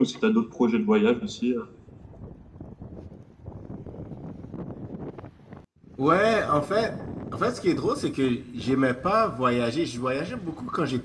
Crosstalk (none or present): none